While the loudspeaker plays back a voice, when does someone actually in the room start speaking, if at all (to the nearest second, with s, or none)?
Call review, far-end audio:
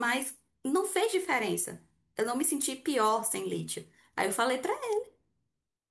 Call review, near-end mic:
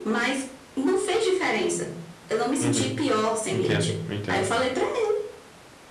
3 s